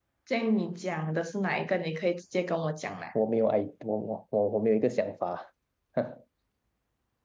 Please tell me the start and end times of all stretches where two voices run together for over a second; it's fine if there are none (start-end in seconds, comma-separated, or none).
none